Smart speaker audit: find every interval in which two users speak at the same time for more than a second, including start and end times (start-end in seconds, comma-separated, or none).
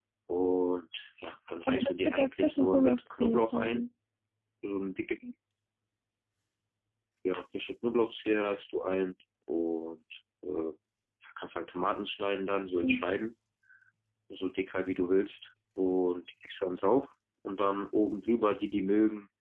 1.6-3.8